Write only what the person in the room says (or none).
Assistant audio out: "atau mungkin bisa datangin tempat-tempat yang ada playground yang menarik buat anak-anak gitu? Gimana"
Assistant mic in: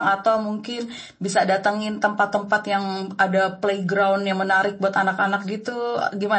none